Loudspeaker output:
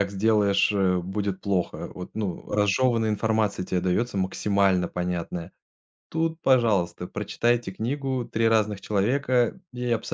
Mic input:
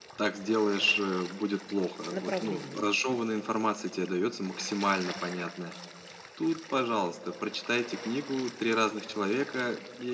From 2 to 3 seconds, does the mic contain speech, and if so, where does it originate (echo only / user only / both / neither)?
both